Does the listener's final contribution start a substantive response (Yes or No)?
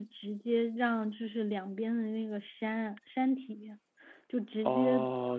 Yes